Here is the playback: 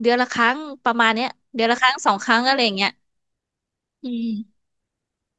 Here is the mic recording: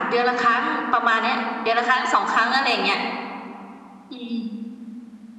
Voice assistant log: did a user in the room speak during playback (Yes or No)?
No